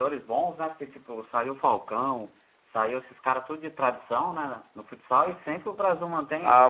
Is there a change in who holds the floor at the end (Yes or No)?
Yes